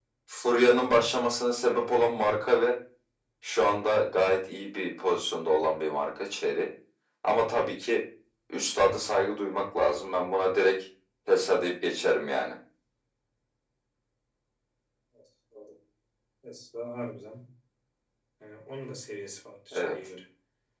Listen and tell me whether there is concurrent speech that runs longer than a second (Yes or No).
No